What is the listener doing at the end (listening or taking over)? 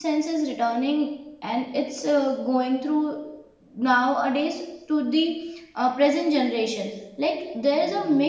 listening